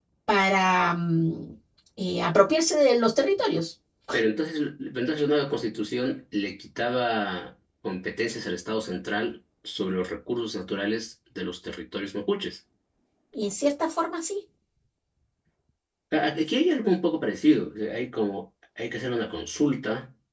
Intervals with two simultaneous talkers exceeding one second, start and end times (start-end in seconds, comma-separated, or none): none